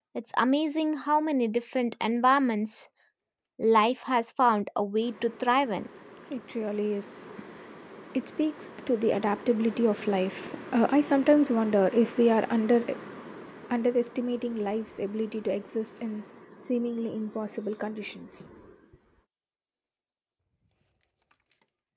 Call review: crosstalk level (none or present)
none